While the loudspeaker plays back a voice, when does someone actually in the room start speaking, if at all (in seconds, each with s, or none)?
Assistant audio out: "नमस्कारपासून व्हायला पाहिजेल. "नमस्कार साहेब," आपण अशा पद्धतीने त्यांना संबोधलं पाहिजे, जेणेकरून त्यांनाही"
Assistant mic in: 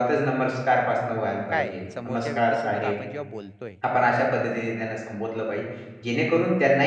1.5 s